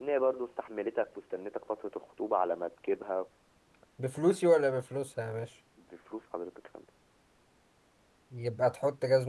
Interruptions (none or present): none